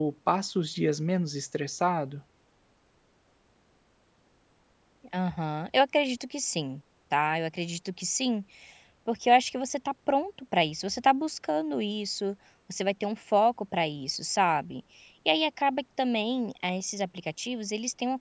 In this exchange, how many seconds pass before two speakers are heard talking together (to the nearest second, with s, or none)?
none